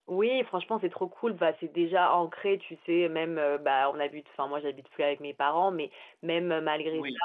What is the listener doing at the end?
listening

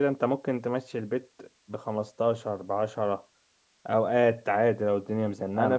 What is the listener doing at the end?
taking over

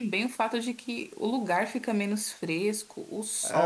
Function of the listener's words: taking over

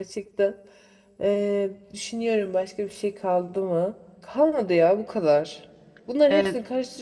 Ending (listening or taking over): listening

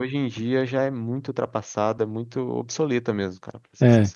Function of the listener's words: taking over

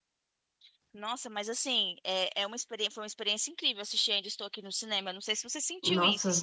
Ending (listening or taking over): taking over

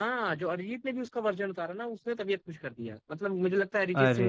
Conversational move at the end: listening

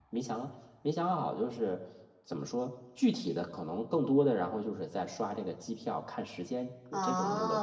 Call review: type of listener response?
taking over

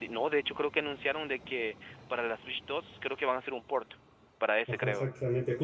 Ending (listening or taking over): taking over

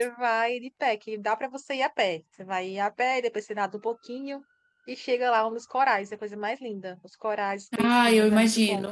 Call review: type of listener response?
taking over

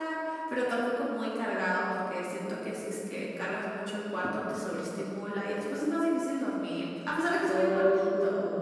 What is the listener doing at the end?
taking over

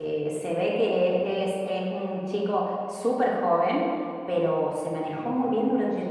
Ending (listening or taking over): listening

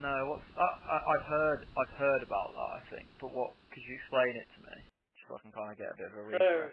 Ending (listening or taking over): taking over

